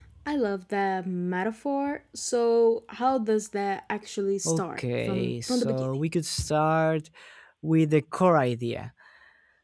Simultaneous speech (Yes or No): Yes